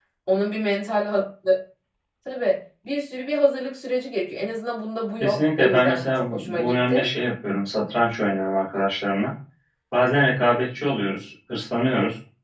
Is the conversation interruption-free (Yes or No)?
No